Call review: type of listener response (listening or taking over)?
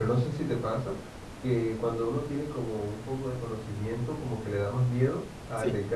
listening